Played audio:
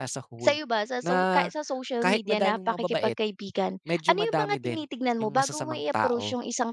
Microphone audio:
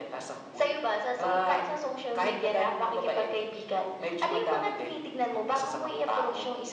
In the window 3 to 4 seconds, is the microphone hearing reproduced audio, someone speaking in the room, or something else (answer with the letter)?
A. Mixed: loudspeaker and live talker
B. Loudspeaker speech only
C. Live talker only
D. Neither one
B